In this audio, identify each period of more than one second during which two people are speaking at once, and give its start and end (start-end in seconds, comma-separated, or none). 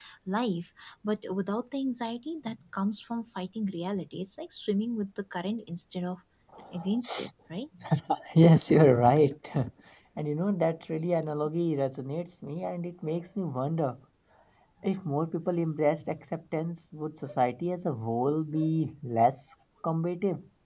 none